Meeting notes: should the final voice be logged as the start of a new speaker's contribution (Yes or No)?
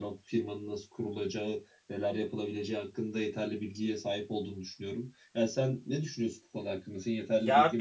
Yes